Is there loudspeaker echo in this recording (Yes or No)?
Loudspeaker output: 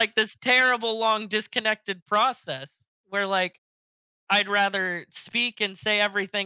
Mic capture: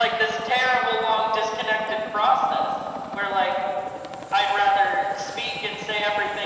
Yes